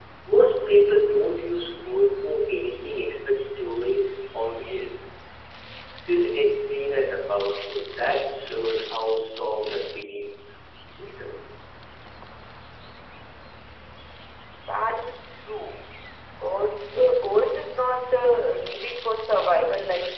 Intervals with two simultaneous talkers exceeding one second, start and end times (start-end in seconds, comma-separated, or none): none